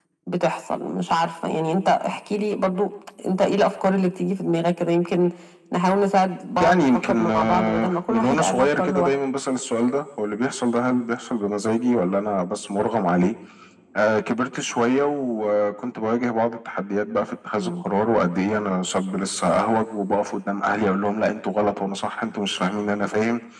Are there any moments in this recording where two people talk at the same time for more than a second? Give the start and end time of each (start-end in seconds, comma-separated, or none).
6.6-9.1